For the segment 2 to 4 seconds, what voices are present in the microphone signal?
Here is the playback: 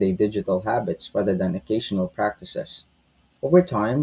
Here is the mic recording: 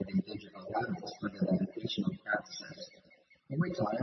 echo only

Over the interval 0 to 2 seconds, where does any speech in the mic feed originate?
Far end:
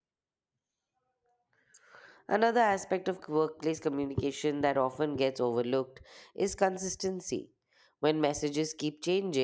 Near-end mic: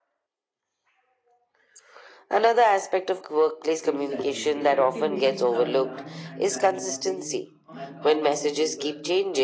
neither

